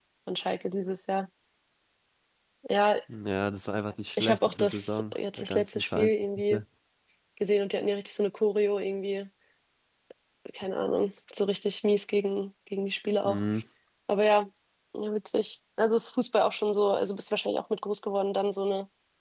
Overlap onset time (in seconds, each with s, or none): 4.2 s